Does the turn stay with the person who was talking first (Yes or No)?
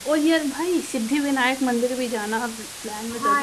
No